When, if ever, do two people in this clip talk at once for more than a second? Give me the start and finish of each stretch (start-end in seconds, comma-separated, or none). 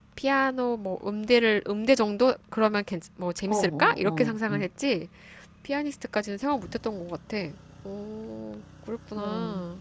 3.5-4.7